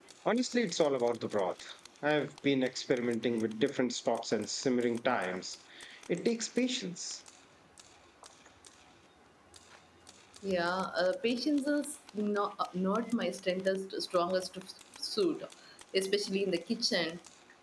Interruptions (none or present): none